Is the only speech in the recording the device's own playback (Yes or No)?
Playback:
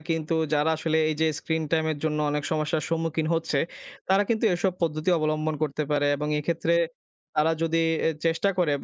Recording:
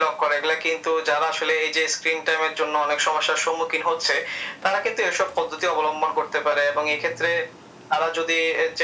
Yes